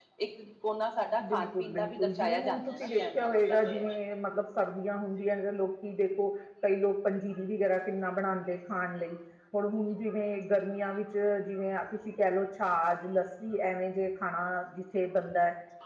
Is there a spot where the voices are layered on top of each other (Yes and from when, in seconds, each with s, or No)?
Yes, from 1.2 s